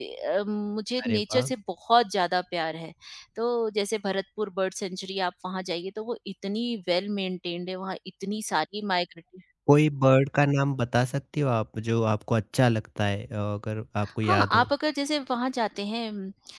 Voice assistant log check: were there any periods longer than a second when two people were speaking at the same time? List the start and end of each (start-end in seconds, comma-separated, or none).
none